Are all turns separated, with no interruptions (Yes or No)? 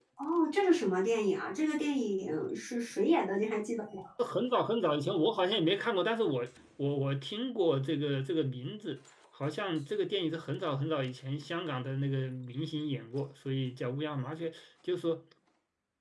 Yes